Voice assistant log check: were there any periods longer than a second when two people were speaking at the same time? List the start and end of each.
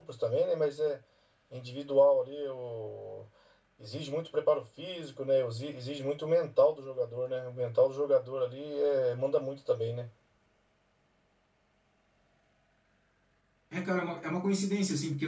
none

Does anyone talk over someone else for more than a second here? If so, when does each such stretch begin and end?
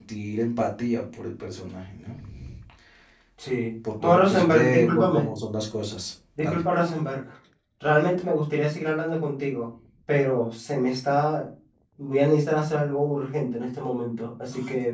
4.0-5.3

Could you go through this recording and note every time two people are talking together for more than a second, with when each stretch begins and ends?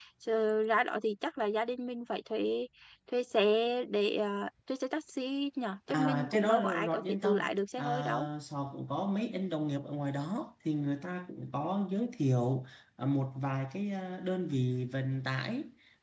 5.9-7.4

